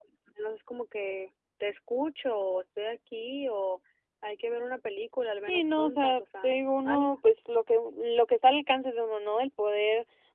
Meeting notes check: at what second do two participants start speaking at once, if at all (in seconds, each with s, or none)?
5.5 s